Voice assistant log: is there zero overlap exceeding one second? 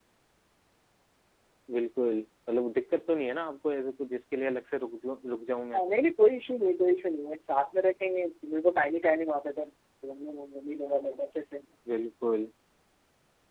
Yes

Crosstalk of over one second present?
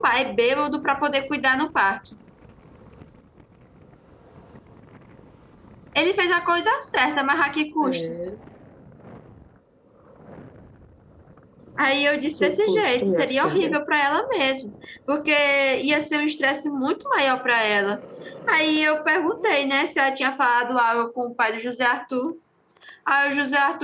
Yes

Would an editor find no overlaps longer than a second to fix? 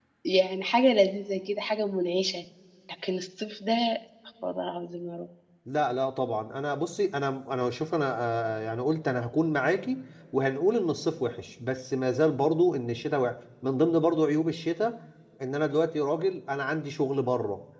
Yes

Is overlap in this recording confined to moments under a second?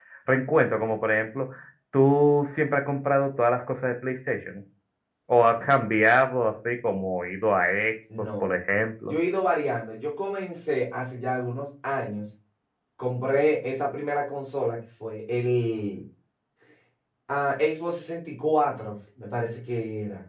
Yes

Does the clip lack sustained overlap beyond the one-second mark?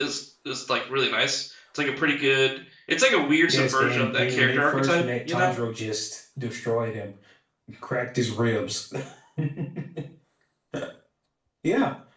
No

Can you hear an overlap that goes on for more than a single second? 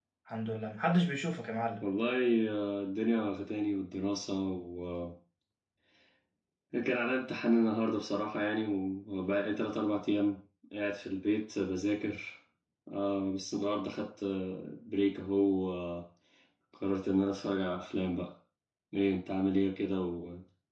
No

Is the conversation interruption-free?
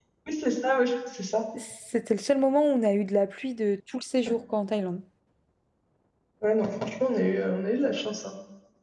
Yes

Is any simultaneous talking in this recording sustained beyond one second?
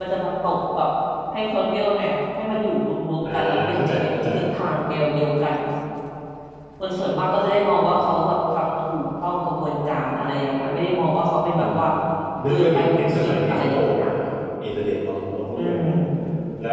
Yes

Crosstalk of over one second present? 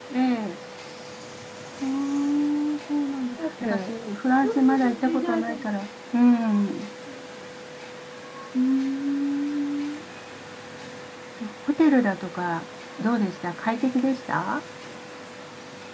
Yes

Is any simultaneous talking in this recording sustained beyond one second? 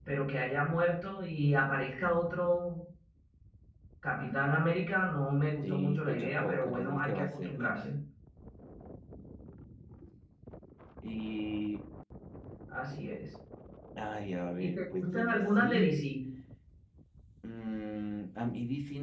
Yes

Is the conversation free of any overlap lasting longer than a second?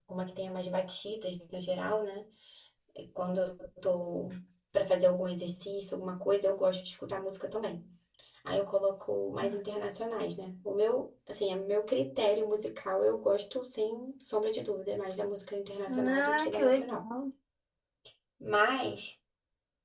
No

